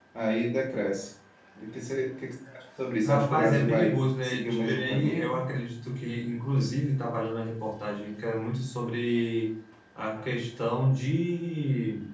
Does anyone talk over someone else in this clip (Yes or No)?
Yes